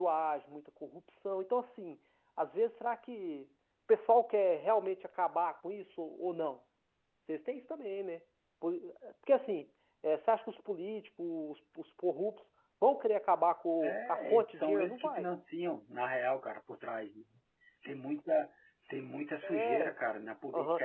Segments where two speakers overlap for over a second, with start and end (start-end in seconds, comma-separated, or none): 13.8-15.3